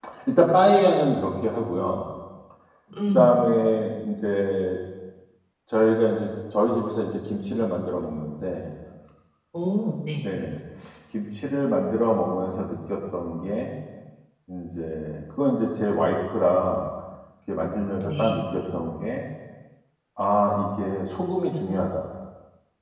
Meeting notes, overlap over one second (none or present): none